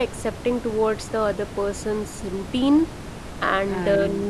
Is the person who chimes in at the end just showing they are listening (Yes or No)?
Yes